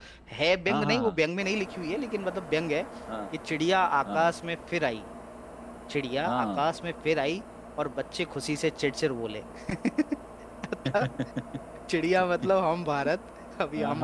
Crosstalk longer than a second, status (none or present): none